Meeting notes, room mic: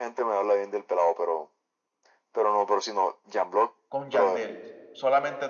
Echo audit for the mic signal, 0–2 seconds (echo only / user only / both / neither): echo only